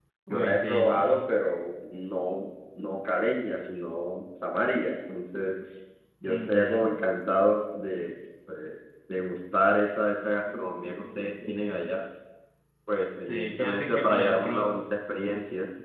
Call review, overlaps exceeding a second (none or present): present